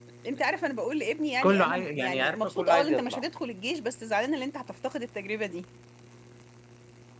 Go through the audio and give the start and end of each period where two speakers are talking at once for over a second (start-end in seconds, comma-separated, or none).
1.4-3.2